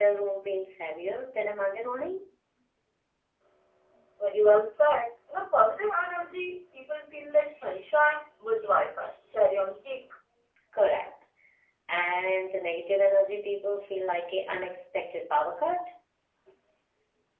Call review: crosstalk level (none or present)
none